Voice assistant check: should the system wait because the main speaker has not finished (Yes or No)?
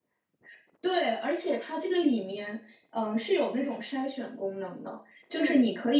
Yes